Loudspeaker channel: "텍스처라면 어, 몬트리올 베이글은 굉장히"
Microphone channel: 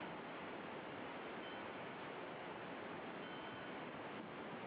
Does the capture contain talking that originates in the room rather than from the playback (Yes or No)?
No